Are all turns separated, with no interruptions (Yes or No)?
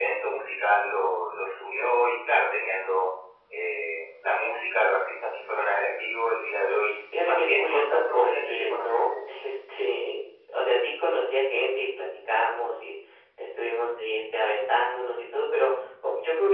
No